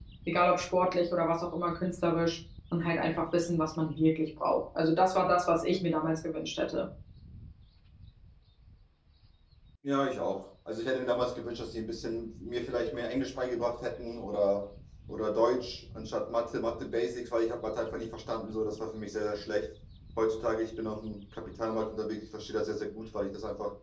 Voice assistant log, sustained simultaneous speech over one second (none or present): none